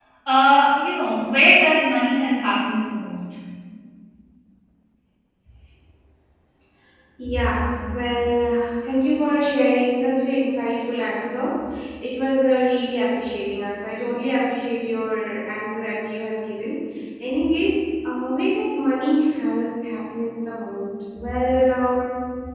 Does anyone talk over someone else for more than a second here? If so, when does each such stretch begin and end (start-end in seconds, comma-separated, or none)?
none